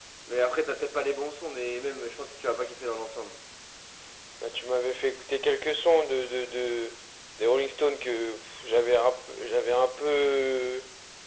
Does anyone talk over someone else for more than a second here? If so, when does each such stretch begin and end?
none

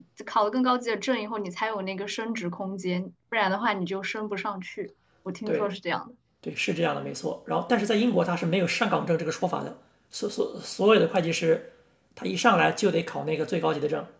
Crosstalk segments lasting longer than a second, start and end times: none

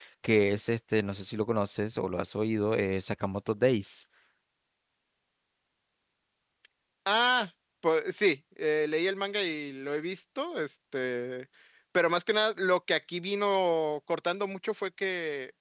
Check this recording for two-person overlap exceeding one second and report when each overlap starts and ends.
none

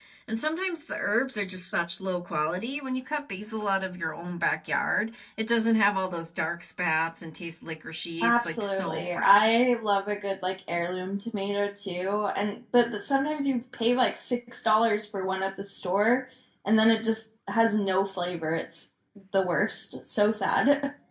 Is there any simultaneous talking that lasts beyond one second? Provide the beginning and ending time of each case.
8.2-9.6

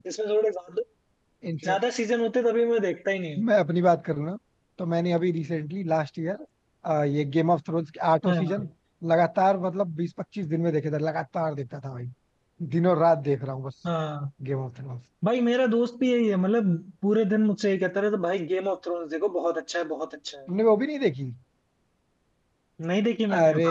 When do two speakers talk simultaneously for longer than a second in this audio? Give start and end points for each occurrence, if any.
none

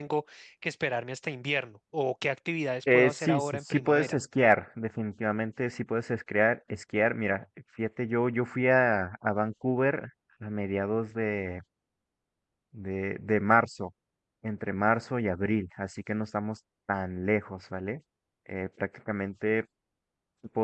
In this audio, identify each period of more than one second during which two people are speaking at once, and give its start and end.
2.9-4.2

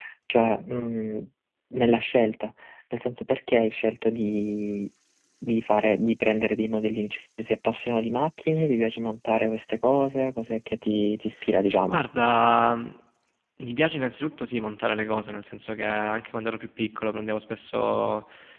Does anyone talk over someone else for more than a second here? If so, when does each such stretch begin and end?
none

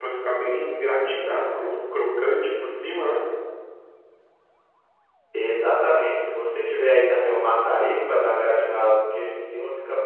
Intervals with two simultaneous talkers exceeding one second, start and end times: none

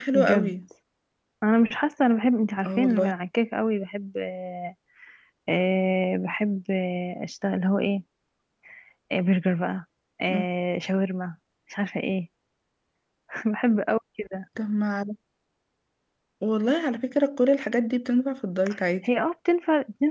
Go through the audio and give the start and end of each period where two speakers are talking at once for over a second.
none

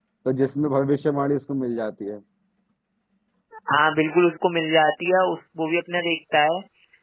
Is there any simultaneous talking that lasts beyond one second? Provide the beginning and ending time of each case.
none

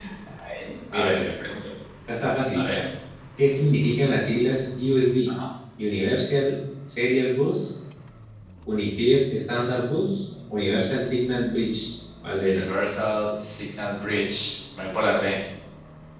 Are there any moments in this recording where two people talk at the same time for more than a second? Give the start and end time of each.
none

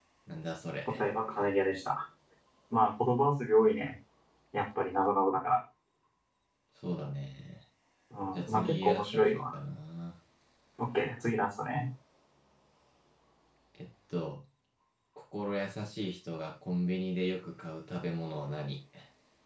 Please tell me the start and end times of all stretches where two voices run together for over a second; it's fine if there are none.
8.3-9.6

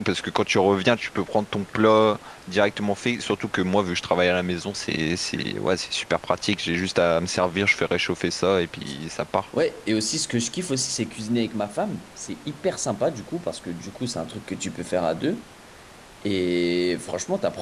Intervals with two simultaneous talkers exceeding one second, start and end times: none

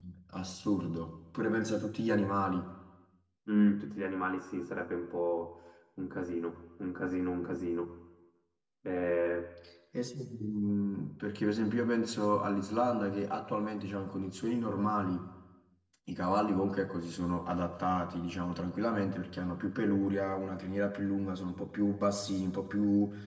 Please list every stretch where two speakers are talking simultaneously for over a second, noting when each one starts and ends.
none

